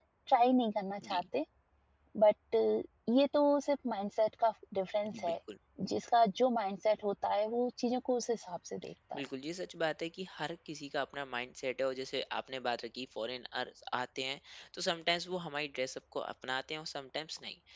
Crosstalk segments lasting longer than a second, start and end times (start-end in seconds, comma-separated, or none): none